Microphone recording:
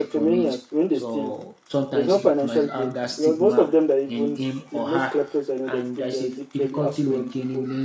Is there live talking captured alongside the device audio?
Yes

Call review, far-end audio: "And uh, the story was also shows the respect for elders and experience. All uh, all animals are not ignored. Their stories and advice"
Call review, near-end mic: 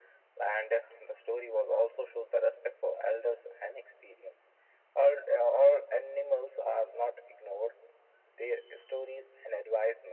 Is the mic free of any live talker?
Yes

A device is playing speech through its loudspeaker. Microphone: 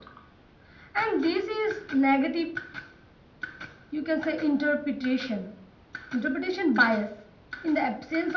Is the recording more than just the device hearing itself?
No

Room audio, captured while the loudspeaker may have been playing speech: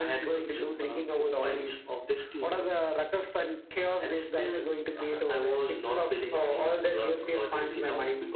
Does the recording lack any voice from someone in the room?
Yes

